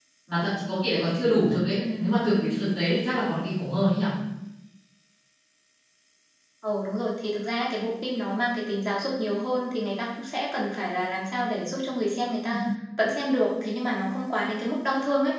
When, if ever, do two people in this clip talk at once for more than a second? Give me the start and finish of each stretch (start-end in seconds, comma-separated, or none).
none